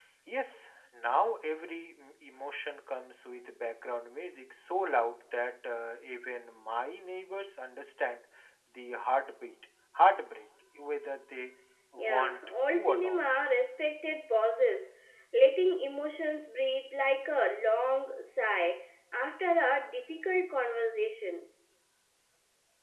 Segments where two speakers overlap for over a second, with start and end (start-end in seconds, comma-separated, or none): 12.0-13.2